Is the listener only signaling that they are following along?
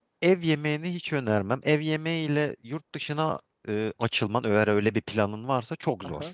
No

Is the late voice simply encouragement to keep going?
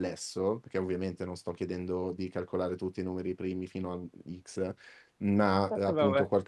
Yes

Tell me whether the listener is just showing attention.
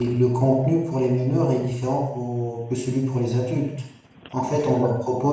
Yes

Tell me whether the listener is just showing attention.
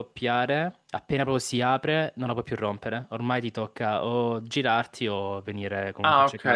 No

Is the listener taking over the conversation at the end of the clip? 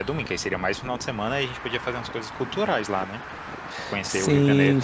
Yes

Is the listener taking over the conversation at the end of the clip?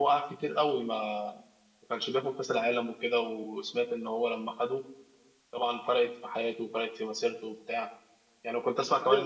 No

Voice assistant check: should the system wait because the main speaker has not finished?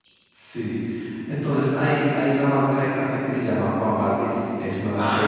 No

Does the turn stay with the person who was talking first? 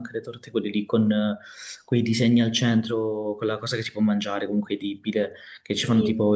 Yes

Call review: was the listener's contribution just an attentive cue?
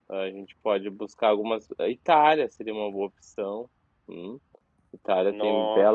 No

